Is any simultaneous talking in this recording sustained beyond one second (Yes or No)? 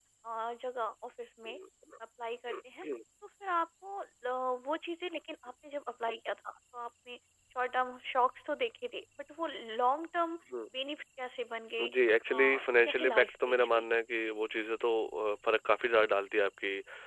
Yes